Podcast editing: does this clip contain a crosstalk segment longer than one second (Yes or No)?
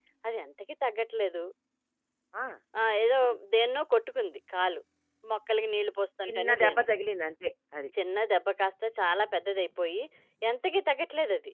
No